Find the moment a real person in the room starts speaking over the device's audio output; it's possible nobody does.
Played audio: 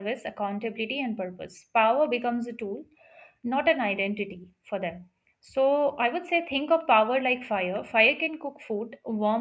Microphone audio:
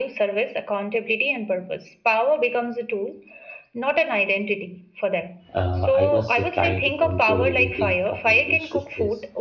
6 s

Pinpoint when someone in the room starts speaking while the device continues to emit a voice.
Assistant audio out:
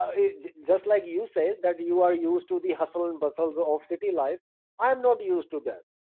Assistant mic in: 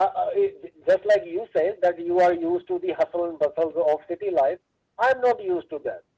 none

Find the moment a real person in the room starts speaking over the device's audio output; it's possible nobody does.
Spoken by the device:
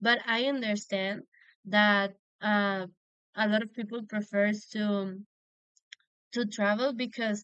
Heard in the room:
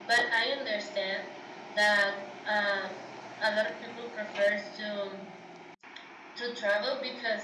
none

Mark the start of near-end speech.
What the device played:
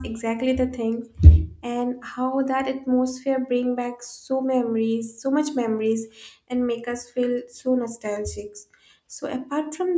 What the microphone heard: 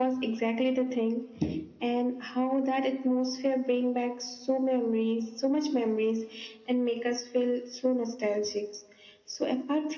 none

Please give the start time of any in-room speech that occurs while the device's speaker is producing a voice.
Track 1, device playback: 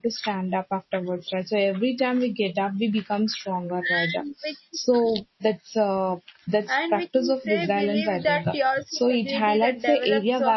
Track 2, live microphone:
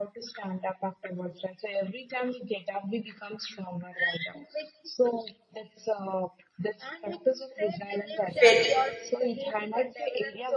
8 s

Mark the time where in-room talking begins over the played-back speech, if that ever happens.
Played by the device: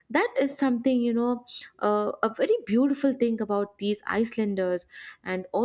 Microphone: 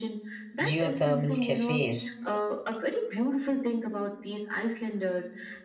1 s

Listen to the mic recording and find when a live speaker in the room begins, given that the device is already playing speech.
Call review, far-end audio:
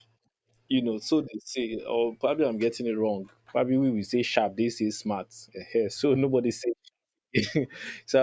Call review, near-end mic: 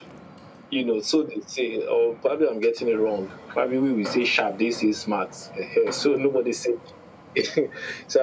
none

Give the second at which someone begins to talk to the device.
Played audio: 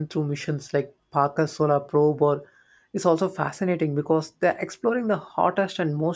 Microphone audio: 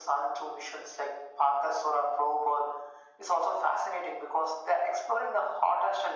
none

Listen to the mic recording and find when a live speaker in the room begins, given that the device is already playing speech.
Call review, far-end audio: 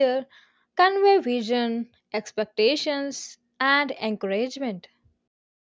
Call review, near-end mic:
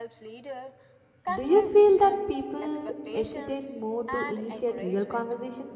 1 s

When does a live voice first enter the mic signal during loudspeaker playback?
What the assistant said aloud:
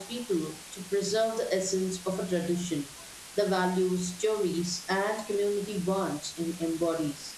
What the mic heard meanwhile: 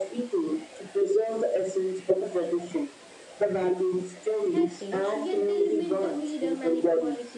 4 s

